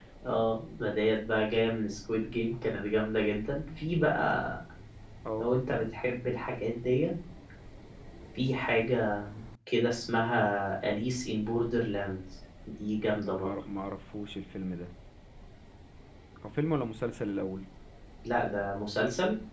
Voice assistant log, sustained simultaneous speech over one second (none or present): none